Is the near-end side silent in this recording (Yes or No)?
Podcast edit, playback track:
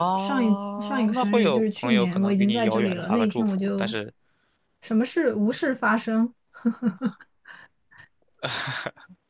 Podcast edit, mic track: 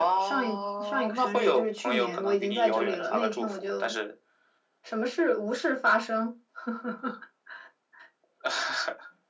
Yes